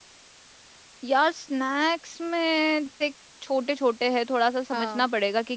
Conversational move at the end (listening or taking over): listening